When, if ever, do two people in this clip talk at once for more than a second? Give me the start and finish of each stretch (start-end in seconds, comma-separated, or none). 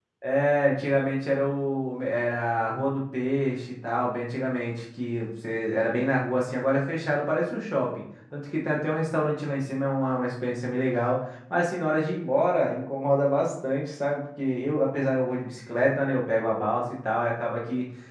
none